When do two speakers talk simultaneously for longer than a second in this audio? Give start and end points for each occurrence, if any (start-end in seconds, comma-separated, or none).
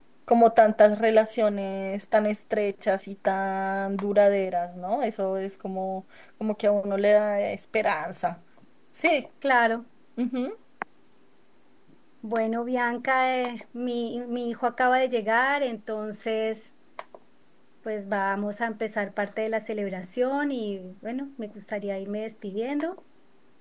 none